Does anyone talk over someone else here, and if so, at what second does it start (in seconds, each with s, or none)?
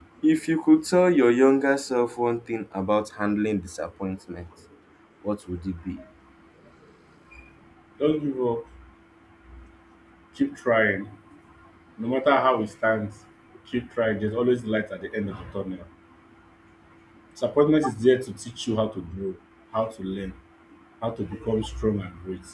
none